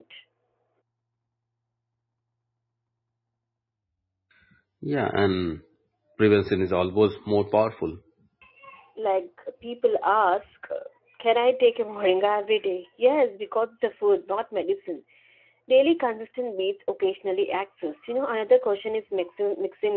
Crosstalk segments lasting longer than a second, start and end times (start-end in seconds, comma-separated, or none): none